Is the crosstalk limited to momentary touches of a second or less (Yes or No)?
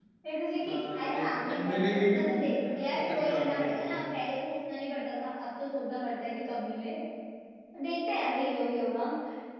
No